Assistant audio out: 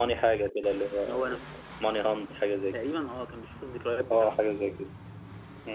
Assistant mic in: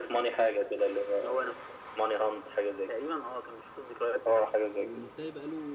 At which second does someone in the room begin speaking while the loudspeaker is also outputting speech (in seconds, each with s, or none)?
4.8 s